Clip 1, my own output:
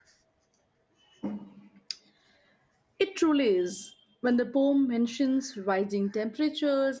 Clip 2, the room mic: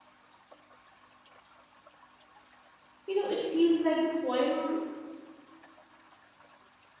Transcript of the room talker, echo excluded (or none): You know, it feels like the poem